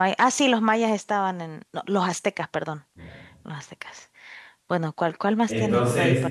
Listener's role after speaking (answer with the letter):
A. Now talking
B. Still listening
A